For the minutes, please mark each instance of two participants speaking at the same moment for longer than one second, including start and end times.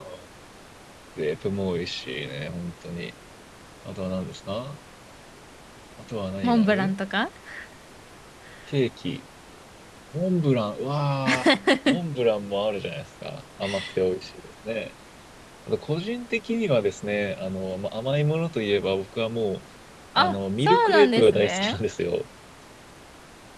20.2-21.8

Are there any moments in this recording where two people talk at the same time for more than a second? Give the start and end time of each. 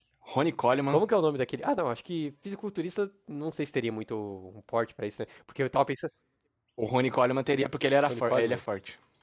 none

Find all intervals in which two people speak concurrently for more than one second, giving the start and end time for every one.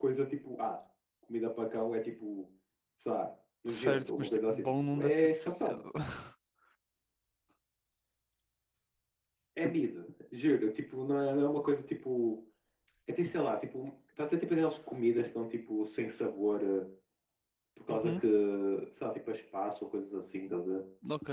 3.7-5.8

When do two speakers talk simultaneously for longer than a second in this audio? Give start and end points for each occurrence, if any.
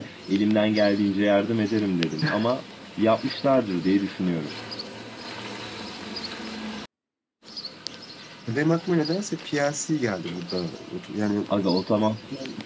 none

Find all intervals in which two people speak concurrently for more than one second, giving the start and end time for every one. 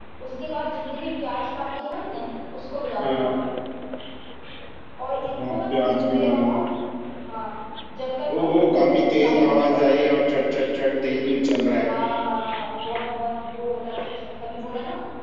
5.3-6.5, 8.4-9.8

